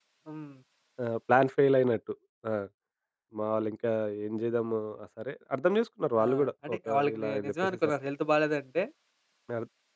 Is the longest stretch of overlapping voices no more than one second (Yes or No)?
No